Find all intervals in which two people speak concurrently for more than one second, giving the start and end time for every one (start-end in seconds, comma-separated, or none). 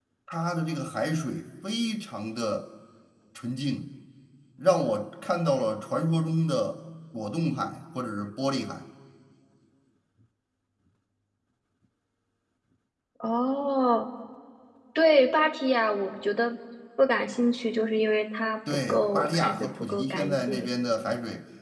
18.7-20.7